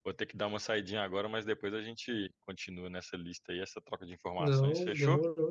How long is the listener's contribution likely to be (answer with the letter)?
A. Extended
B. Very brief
A